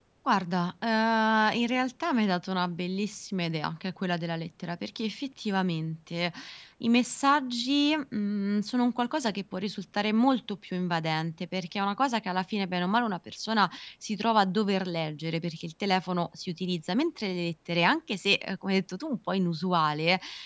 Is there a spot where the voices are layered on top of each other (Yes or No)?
No